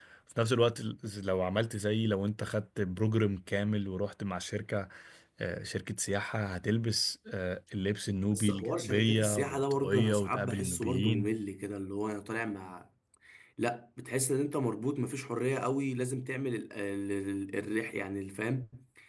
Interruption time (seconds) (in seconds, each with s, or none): 8.3 s